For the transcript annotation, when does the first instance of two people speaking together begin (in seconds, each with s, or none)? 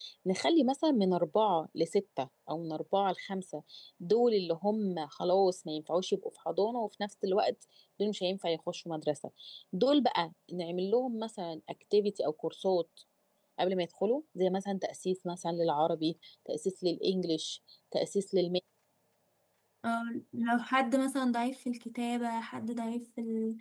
none